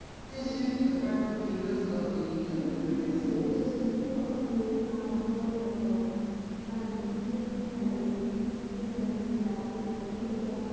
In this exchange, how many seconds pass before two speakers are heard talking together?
2.4 s

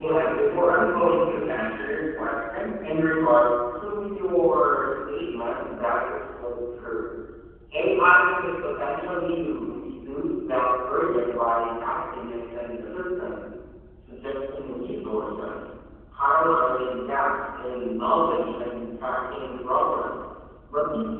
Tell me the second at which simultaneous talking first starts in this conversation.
none

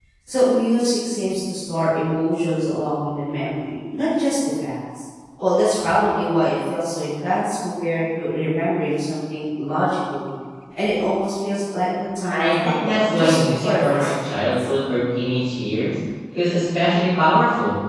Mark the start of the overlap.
12.3 s

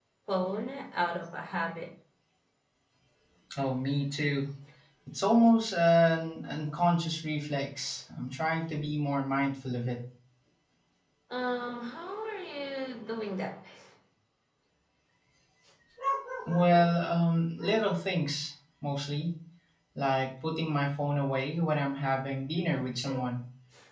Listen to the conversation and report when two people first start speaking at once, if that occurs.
none

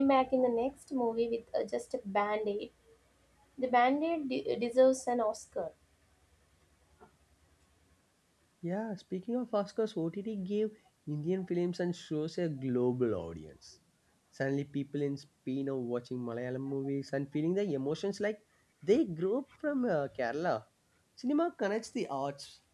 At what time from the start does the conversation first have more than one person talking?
none

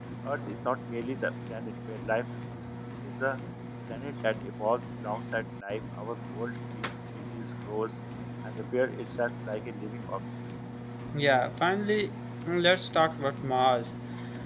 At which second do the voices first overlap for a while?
none

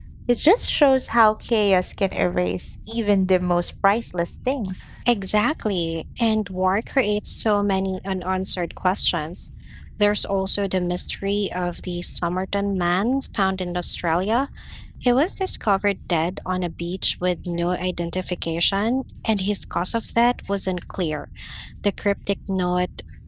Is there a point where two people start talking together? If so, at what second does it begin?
none

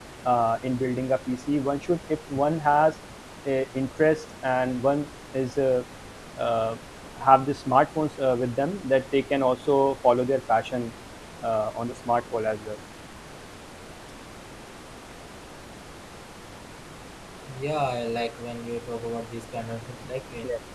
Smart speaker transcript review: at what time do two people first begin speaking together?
none

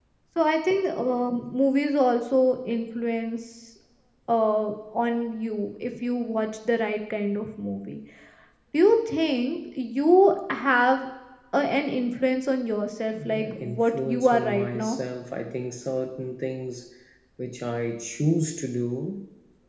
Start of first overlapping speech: 13.1 s

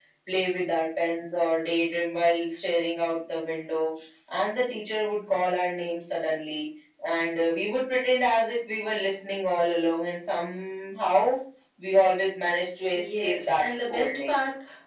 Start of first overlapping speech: 12.9 s

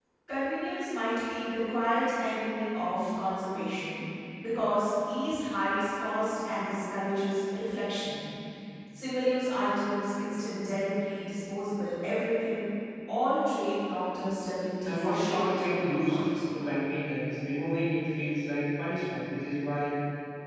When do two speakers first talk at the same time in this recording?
14.8 s

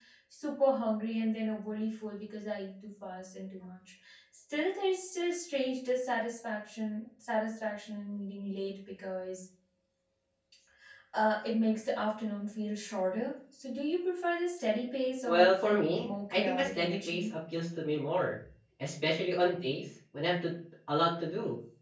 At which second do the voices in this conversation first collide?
15.2 s

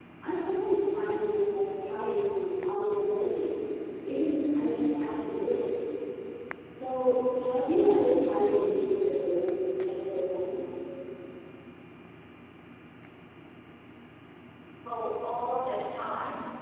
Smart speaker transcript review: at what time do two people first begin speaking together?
none

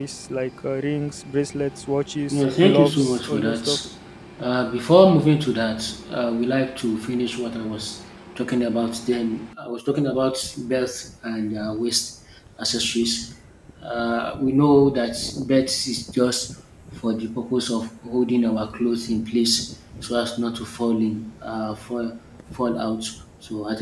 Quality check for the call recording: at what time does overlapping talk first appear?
2.3 s

